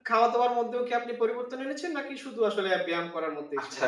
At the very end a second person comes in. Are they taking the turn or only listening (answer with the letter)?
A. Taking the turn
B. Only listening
A